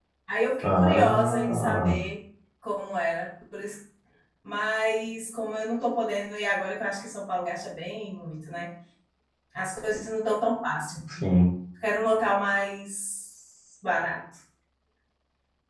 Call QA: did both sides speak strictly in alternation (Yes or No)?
No